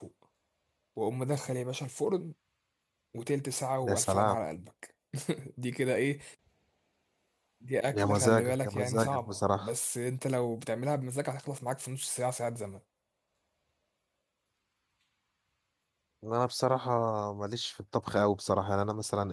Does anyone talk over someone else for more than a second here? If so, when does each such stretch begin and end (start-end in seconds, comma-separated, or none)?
7.9-9.7